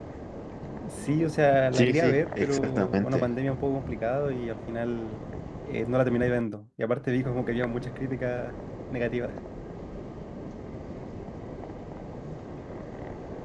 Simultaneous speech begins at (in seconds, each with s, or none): 1.7 s